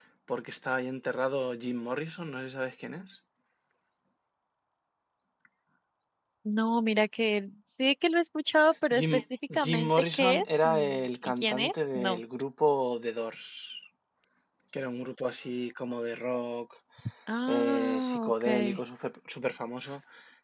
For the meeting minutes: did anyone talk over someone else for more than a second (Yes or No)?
Yes